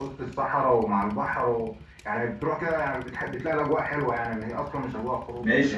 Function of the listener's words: taking over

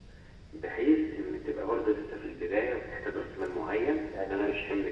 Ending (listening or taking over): listening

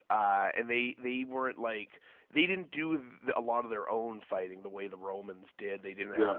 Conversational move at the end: listening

